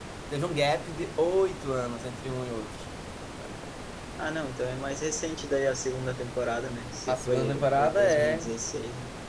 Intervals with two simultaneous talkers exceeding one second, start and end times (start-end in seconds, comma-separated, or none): 7.1-8.5